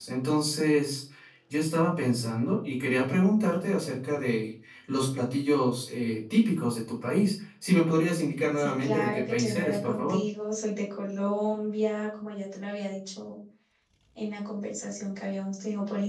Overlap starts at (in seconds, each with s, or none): 8.6 s